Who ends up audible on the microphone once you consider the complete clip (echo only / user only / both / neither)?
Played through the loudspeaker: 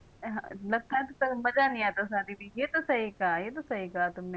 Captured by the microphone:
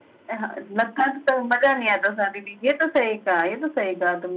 echo only